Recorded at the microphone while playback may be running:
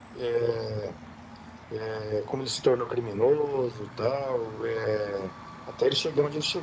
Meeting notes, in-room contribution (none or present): none